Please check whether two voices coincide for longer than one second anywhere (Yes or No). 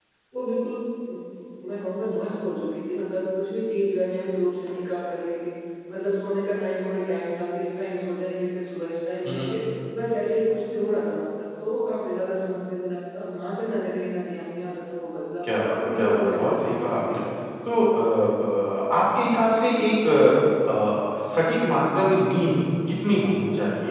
Yes